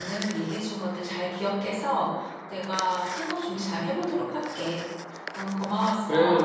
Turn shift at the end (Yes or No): Yes